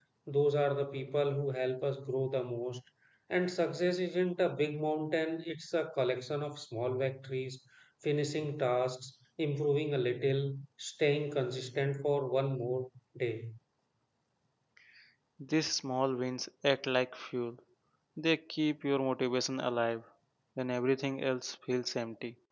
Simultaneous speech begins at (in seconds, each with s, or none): none